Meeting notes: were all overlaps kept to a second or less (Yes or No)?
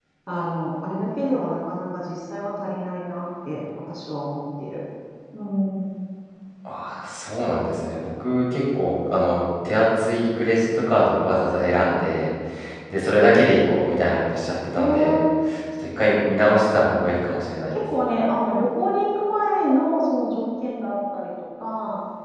Yes